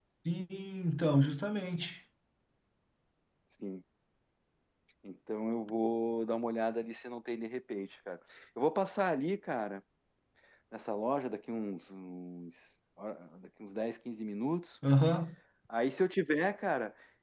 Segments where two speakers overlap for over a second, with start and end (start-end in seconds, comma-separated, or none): none